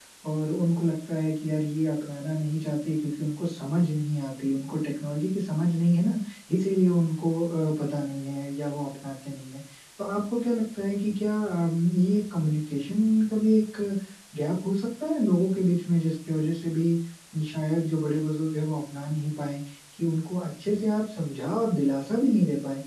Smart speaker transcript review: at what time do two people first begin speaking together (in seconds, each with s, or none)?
none